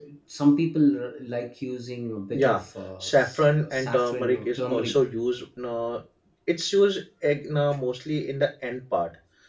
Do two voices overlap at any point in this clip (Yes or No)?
Yes